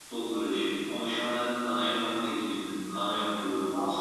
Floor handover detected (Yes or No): No